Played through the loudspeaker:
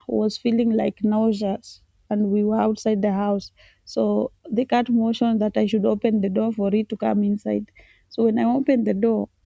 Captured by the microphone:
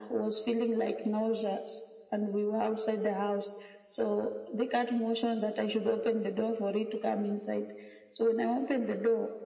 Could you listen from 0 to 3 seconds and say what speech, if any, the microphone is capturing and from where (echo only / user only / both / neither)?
echo only